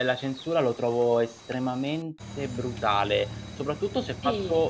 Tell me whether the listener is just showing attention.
Yes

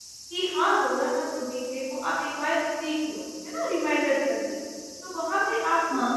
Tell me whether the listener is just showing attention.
Yes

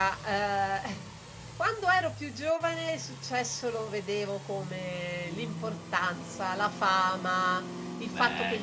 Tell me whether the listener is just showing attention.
Yes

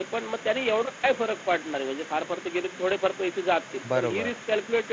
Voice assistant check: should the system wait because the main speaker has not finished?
Yes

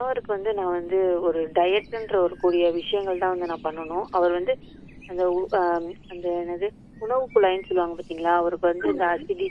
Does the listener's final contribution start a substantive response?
No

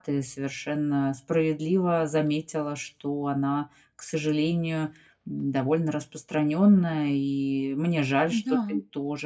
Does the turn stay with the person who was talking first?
Yes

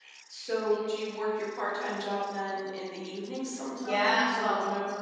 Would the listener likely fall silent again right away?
No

